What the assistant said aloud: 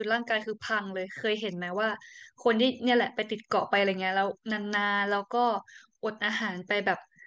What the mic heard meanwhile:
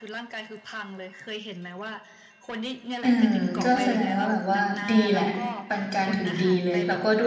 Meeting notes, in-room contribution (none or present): present